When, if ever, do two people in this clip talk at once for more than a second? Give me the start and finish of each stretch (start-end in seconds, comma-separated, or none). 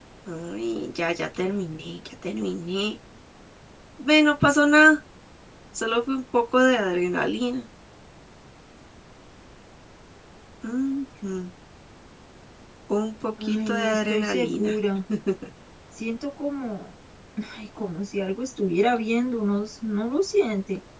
13.4-14.8